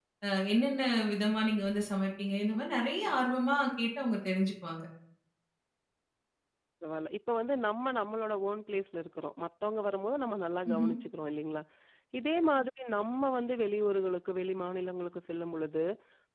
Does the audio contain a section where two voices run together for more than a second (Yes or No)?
No